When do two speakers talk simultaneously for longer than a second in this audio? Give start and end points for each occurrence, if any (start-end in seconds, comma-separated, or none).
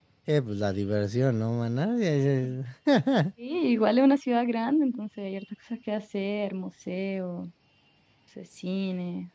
none